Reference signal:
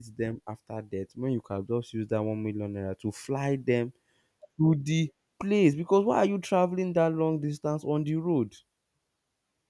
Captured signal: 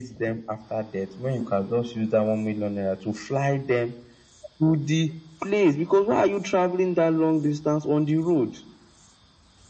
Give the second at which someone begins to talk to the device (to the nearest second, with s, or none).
none